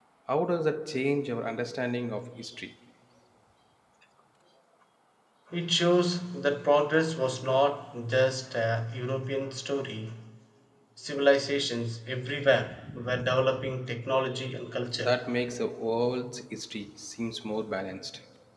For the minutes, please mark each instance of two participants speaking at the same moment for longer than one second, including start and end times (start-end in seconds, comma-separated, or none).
none